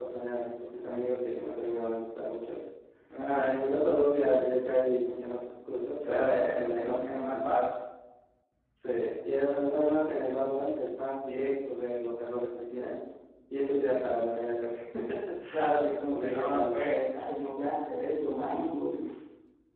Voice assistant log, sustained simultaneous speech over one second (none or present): present